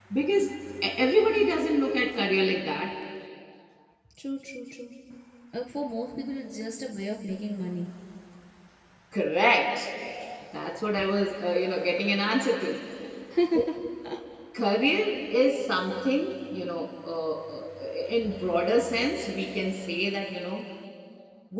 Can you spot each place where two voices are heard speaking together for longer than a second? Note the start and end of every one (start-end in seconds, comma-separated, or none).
none